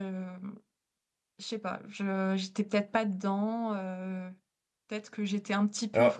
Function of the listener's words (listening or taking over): listening